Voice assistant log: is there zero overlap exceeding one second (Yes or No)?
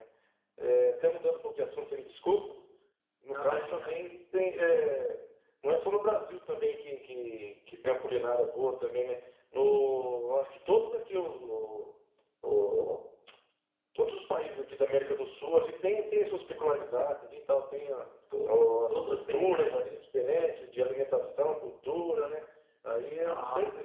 No